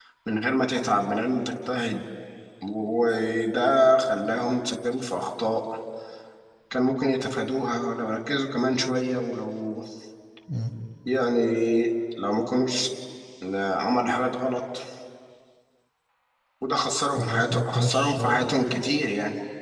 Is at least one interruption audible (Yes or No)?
Yes